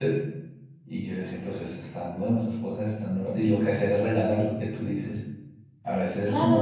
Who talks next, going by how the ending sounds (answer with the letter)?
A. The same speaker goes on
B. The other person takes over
A